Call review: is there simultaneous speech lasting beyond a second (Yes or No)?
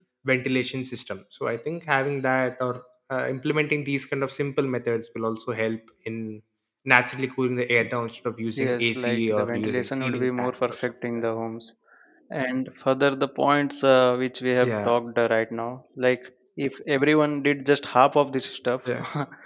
Yes